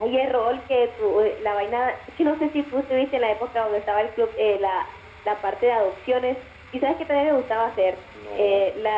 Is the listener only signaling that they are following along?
Yes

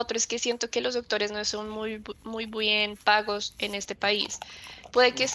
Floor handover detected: No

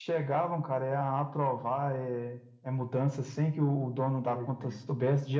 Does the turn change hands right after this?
No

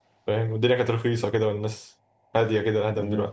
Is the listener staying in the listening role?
No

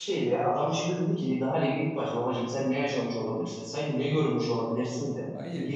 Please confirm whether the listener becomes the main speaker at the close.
No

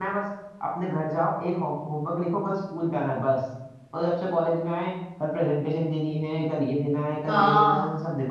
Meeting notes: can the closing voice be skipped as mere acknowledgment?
No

